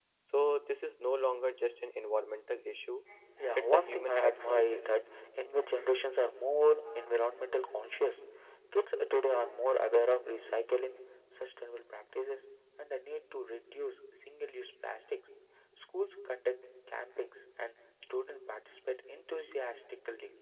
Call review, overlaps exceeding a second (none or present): present